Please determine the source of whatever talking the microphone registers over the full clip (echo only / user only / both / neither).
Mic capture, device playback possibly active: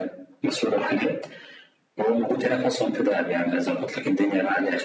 echo only